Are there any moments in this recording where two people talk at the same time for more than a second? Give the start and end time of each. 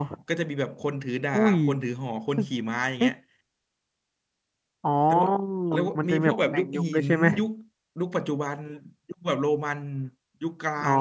6.0-7.2

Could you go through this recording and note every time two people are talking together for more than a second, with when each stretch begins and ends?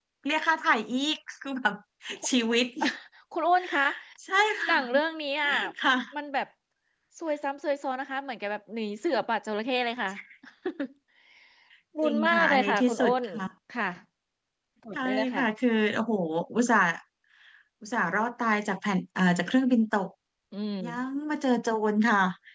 12.0-13.2

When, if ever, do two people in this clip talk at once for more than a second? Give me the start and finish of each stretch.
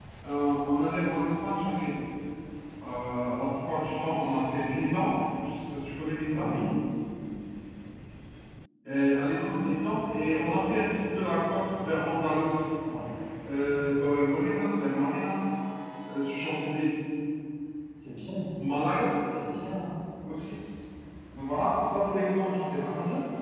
none

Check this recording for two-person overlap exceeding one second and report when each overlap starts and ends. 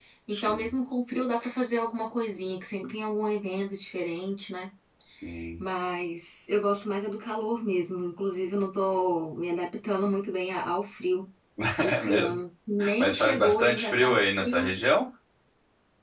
13.0-14.8

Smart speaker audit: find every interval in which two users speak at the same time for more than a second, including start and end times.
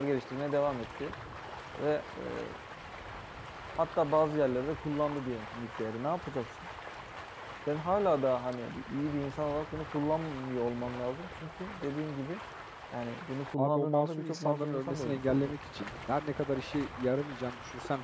13.6-15.5

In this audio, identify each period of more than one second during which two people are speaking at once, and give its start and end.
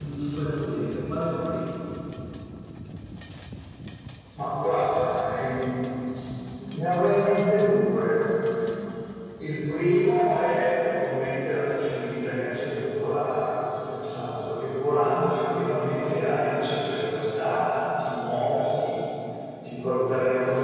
none

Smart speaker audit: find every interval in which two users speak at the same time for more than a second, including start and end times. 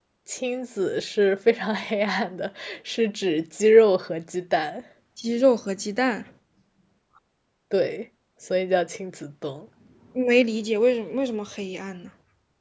none

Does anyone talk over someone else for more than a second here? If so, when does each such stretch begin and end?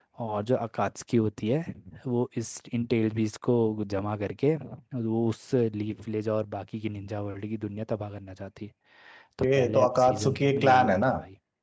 9.4-11.1

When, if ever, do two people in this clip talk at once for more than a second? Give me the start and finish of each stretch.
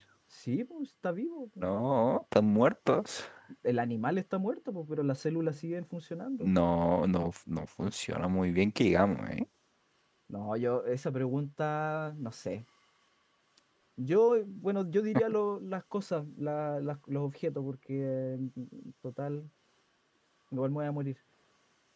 none

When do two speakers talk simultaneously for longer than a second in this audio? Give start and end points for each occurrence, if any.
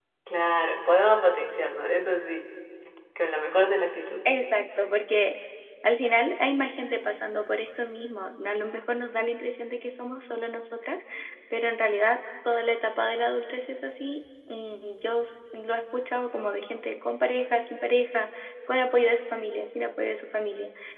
none

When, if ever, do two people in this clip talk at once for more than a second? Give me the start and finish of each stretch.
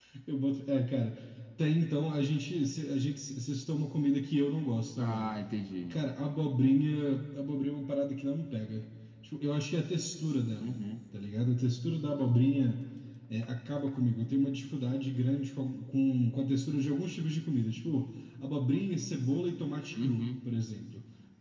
none

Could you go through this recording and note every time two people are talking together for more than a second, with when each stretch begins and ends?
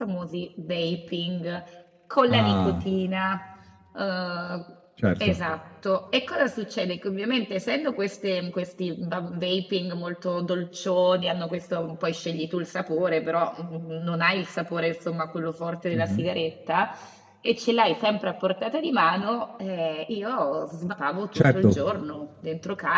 none

